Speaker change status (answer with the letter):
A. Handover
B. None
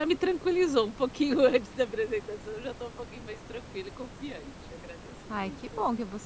A